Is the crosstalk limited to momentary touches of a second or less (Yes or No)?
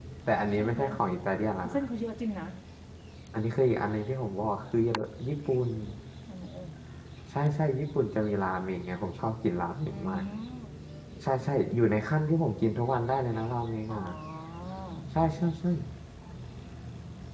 Yes